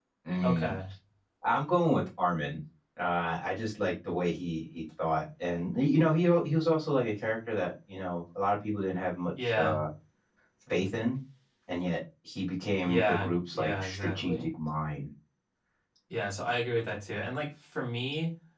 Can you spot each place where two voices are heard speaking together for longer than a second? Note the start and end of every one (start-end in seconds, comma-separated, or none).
12.8-14.5